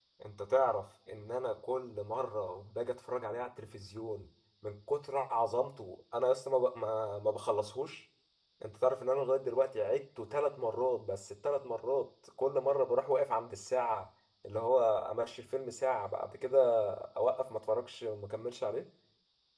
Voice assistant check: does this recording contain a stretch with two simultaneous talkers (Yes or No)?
No